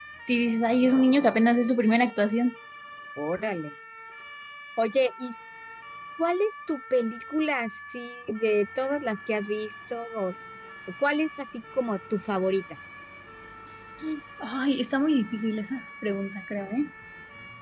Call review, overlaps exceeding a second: none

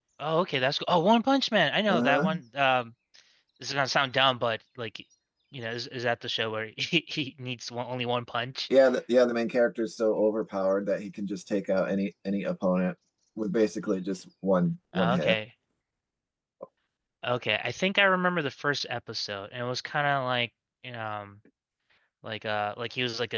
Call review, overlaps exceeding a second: none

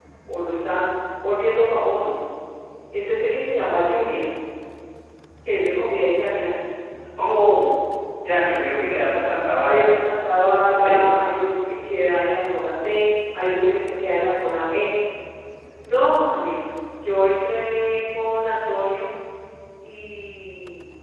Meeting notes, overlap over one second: none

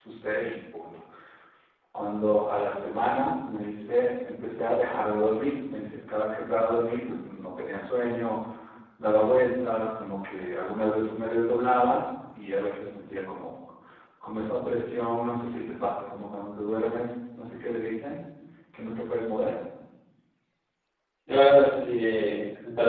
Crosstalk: none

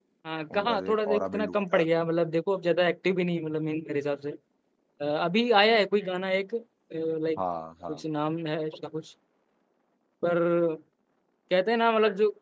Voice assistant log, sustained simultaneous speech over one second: present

